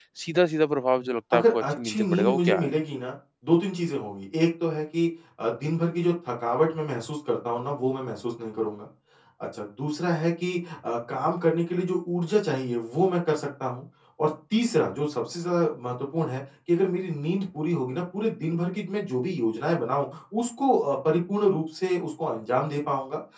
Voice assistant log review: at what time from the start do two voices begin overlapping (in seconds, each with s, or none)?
1.3 s